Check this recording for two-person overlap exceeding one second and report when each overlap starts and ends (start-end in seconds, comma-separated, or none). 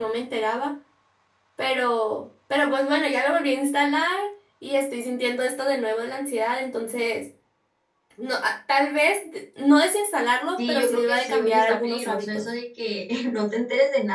10.6-12.5